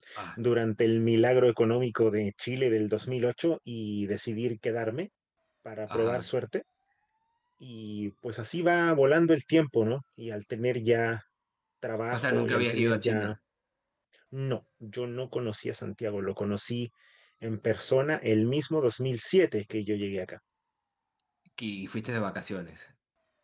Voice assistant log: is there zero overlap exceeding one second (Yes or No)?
No